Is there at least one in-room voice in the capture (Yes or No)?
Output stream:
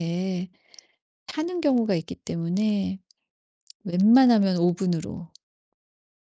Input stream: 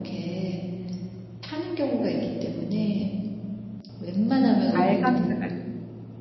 Yes